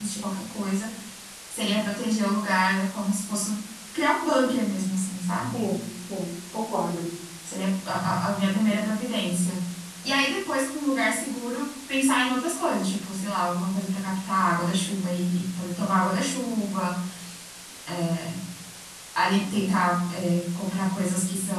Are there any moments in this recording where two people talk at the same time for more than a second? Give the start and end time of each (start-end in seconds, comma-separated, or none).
none